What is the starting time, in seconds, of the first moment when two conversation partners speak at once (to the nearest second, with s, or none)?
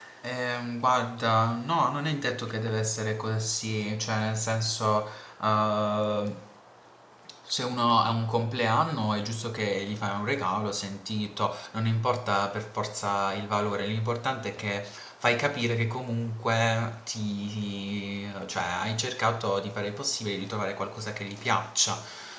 none